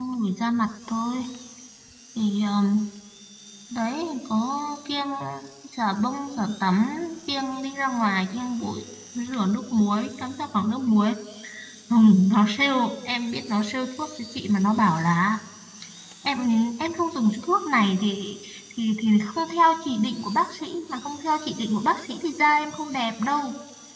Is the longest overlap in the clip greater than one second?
No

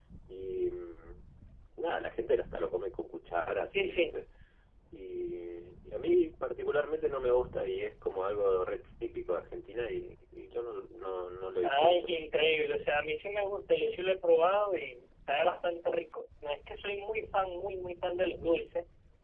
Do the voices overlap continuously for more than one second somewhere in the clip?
No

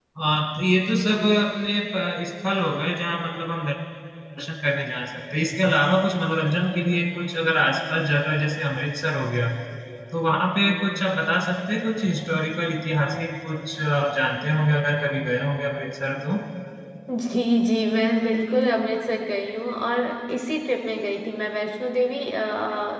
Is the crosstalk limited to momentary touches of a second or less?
Yes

